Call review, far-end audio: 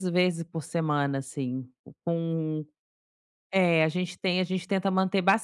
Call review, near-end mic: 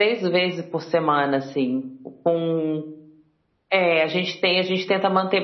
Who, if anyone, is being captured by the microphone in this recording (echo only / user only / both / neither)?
echo only